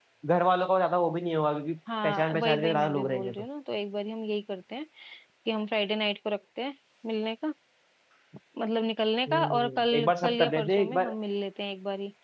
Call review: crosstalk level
present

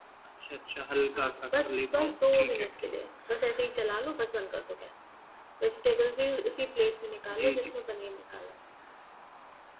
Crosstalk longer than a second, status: present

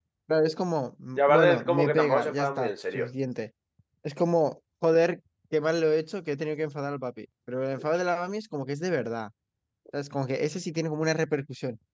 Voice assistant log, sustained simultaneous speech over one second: present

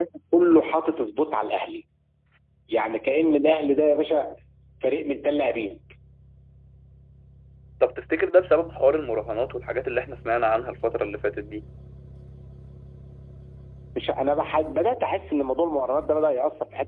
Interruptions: none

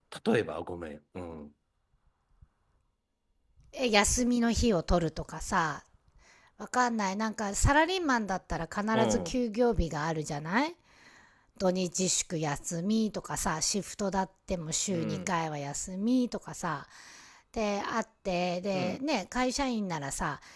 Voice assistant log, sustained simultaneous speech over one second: none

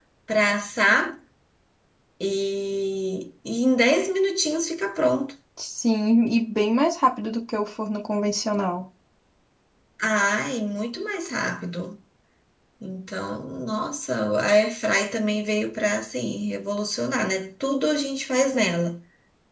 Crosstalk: none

